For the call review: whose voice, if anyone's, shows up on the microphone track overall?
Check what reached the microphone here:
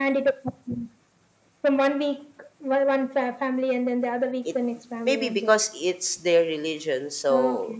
both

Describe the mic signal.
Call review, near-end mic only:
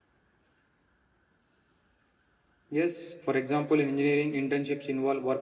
user only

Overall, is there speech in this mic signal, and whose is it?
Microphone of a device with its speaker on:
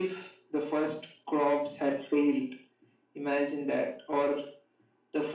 echo only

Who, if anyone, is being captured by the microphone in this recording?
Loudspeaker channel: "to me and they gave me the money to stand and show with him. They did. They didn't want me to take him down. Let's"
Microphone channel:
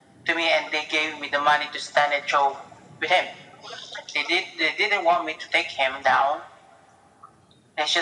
echo only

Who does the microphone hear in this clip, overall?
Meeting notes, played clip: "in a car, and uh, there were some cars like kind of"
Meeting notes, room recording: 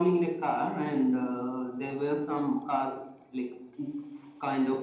echo only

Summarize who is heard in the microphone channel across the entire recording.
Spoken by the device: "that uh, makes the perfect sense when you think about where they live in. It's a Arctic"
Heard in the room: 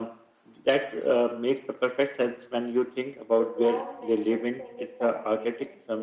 both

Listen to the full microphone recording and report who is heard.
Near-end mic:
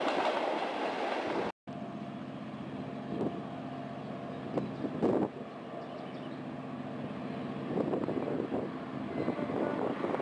neither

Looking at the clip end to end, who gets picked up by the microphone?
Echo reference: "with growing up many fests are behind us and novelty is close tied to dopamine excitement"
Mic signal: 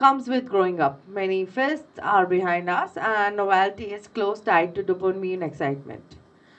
echo only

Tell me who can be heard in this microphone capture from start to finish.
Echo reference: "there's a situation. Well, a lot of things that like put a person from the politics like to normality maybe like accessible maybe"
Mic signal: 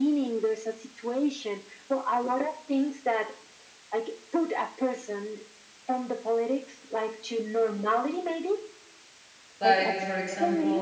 both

